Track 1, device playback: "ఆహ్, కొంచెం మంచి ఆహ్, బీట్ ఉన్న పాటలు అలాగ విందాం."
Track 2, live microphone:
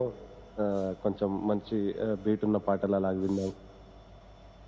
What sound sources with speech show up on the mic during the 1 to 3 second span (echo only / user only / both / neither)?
echo only